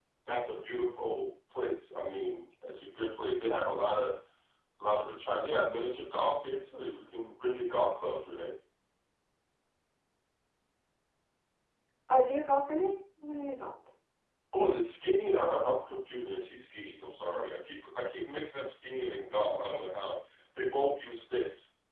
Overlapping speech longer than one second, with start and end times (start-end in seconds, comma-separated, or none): none